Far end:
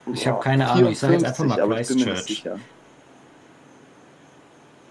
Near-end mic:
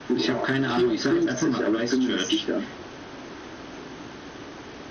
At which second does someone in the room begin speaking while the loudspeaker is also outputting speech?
none

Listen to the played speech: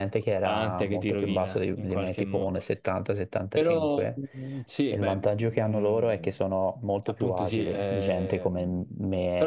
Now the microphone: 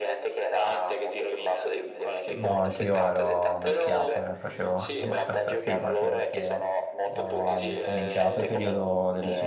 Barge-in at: 2.2 s

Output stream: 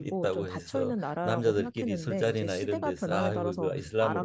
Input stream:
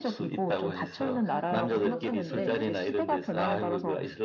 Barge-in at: 1.3 s

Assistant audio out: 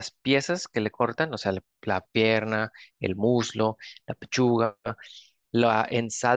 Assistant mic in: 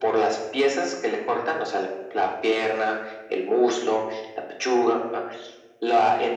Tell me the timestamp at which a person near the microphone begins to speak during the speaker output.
none

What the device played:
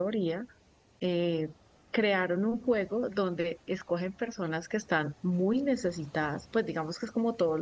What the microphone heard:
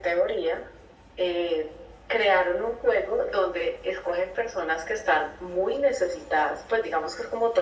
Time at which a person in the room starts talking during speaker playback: none

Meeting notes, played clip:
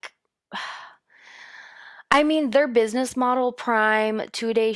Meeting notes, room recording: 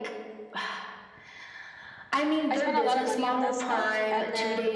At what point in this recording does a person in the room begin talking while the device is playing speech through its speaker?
2.5 s

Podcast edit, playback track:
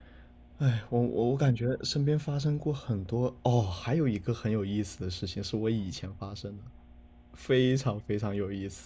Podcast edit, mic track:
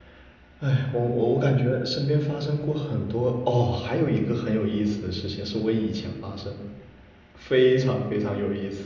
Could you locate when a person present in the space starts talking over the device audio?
none

